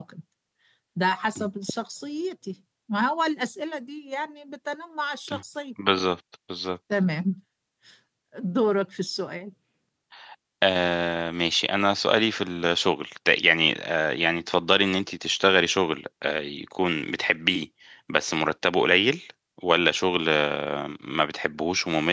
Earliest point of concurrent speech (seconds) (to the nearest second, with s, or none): none